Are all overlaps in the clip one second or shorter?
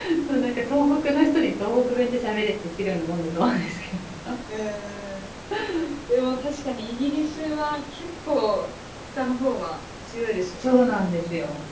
Yes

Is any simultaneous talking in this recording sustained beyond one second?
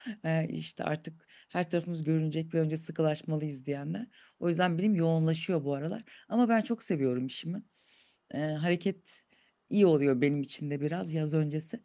No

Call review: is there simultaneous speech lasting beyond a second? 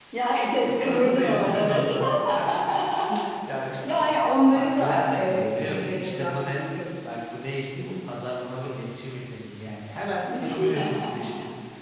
Yes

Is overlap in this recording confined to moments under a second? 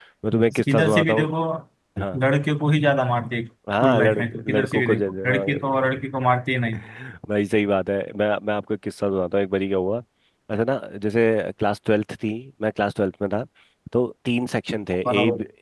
No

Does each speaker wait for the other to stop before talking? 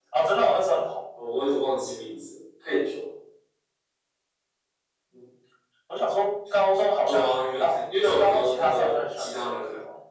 No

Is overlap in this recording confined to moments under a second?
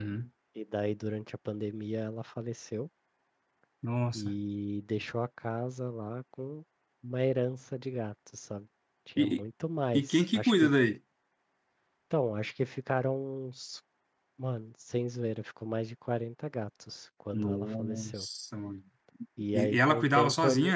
No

